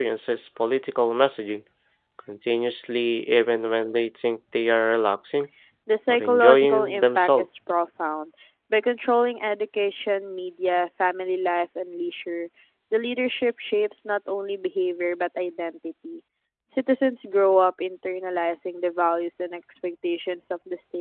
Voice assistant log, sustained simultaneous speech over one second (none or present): present